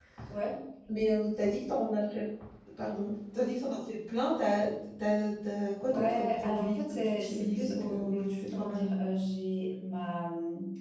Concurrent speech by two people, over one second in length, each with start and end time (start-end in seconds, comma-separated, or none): 5.9-8.9